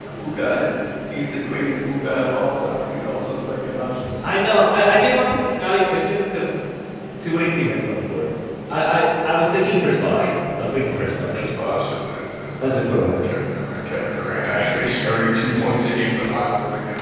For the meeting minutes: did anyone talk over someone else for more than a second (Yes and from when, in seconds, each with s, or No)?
No